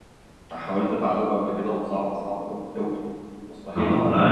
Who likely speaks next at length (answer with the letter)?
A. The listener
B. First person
A